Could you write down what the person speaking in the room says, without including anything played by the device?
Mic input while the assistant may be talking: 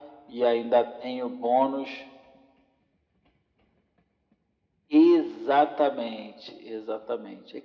none

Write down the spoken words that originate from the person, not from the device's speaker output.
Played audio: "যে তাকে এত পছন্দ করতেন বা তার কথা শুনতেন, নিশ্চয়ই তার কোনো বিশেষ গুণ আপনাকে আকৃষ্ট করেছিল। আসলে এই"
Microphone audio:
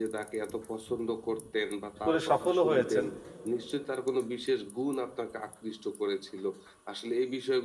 করে সফলও হয়েছেন

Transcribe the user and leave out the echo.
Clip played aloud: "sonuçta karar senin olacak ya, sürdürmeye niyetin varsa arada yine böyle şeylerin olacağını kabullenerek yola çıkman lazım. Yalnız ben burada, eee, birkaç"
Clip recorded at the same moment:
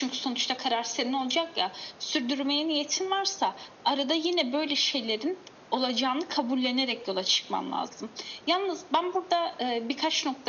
none

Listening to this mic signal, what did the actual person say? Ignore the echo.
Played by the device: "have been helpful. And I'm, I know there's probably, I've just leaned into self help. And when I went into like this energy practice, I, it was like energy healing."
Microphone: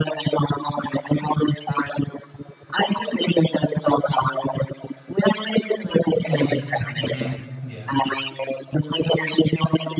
Mm. Mhm. Yeah,

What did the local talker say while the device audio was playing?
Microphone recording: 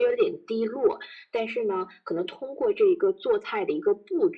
none

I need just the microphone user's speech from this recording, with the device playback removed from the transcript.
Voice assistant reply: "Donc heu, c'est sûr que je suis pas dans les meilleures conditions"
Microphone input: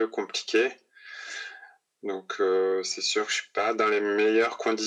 none

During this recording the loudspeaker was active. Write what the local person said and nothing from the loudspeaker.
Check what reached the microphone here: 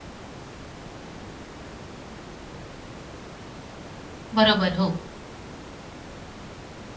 बरोबर, हो.

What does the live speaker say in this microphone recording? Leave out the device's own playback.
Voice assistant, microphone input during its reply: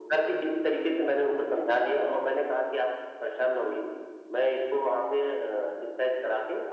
none

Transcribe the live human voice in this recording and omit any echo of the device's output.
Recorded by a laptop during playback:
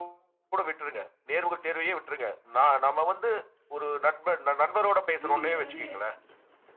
ஆனா, நீங்க வந்து

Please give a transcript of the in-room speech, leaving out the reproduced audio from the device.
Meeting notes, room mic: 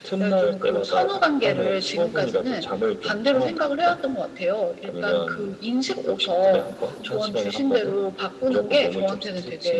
none

